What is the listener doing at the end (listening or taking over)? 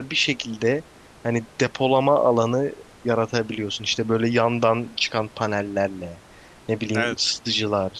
listening